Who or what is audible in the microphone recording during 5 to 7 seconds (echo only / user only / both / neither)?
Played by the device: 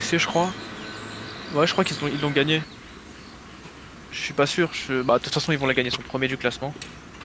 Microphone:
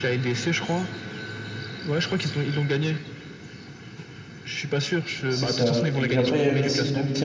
both